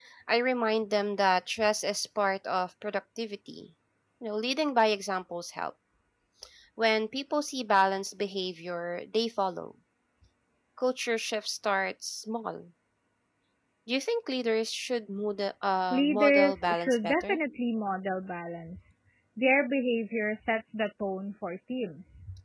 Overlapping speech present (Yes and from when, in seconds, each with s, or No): Yes, from 15.9 s